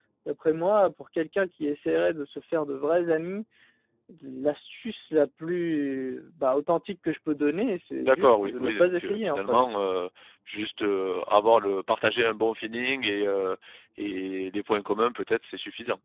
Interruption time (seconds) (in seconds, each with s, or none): 8.0 s